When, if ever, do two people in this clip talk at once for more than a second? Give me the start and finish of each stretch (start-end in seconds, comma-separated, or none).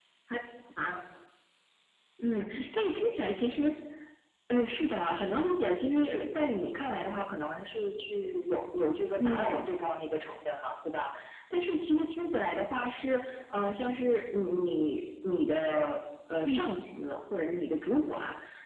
none